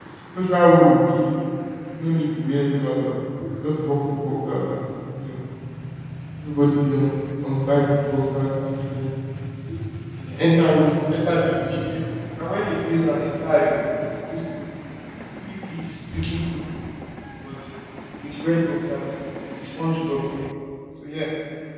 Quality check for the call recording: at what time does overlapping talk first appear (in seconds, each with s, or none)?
none